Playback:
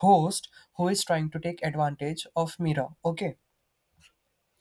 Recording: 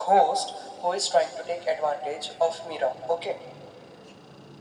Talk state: echo only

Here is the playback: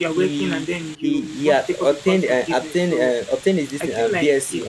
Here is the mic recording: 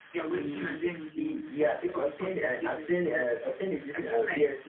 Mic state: echo only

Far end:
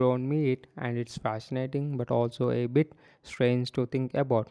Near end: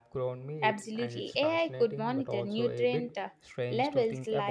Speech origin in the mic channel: both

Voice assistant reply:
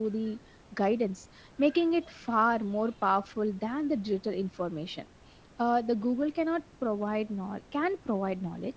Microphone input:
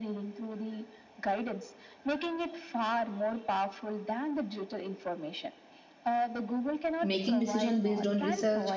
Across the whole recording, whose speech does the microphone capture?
both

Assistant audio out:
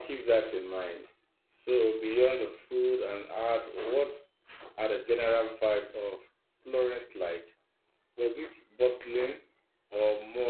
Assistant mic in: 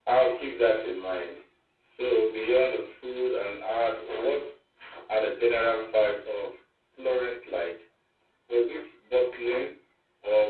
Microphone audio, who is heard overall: echo only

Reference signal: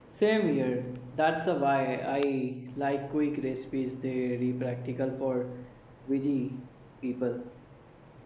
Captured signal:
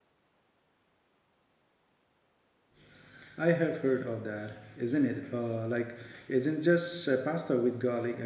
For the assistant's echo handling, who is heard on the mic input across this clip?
user only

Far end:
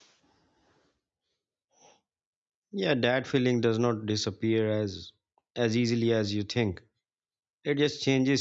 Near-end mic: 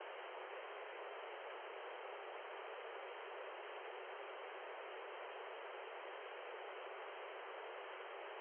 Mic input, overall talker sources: neither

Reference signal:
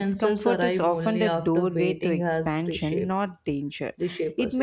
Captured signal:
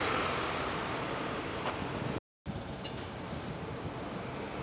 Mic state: neither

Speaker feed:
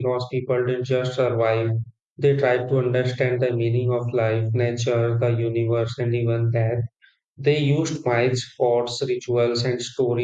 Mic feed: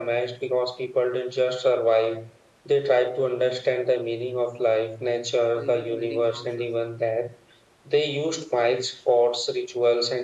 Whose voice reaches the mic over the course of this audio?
both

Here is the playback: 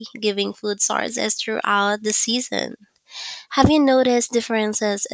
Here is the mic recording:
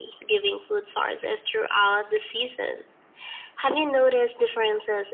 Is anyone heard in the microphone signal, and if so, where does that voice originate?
echo only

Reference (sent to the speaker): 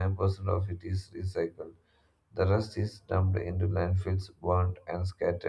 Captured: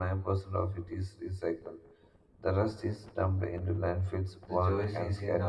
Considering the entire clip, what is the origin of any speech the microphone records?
both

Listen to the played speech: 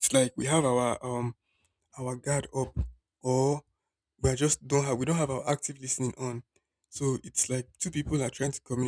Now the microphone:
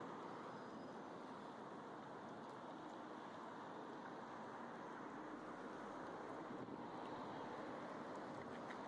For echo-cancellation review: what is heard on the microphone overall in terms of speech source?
neither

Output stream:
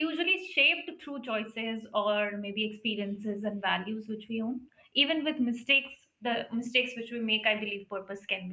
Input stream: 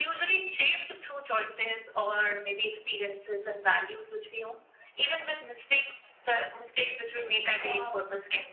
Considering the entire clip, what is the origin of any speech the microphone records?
both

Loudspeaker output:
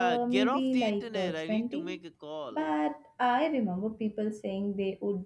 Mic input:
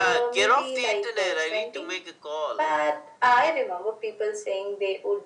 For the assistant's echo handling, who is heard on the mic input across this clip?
echo only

